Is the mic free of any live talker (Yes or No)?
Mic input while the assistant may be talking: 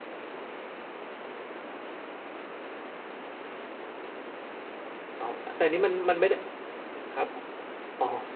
No